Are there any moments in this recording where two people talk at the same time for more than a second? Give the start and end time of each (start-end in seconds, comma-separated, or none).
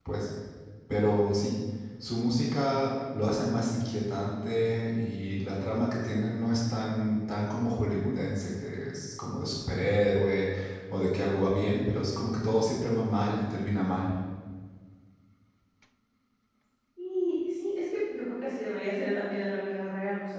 none